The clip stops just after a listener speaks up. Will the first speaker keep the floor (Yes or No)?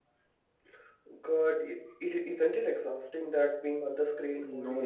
No